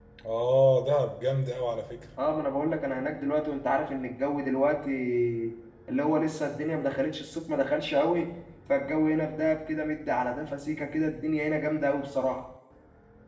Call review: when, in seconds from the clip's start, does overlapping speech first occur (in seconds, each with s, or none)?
none